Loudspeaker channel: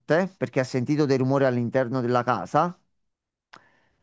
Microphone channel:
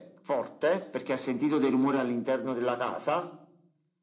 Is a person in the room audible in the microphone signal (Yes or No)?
No